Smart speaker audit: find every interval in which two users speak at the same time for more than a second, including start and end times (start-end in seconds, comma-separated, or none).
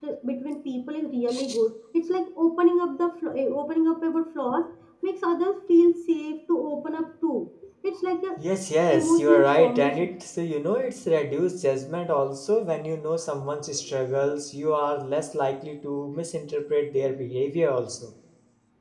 8.9-10.2